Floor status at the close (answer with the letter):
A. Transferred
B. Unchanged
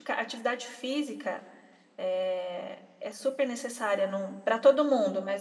B